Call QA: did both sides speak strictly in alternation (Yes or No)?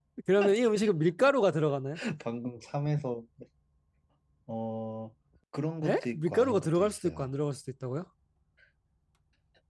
No